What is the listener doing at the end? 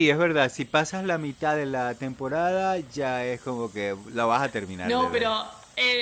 taking over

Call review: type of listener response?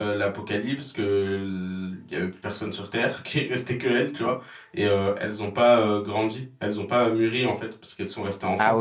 taking over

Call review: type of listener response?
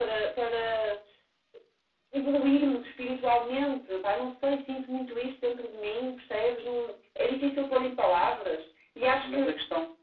taking over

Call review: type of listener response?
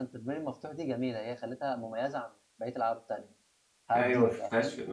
taking over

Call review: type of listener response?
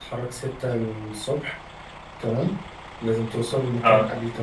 listening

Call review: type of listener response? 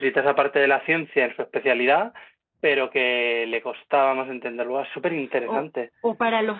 taking over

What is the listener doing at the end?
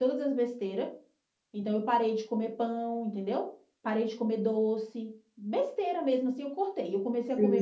taking over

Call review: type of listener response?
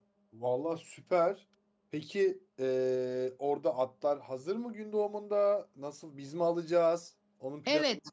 taking over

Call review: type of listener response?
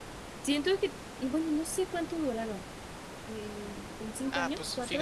taking over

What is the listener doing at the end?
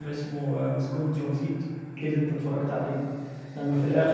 listening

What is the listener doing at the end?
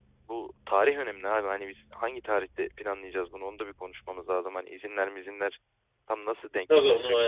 taking over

